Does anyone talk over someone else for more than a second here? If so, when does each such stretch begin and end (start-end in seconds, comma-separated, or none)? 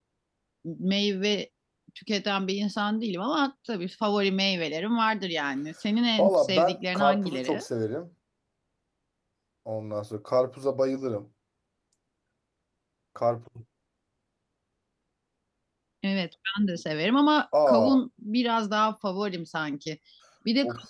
6.2-7.6